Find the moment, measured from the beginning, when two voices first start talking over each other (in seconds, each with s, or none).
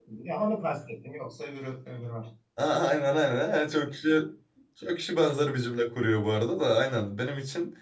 none